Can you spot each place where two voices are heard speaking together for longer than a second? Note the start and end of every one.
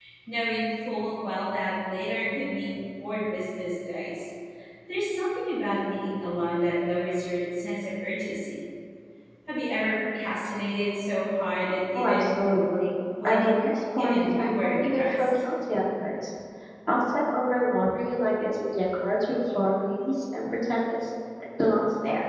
14.0-15.3

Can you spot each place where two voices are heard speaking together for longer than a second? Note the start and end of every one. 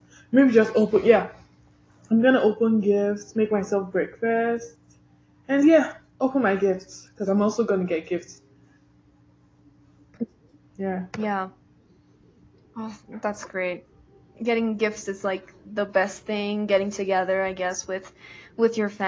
none

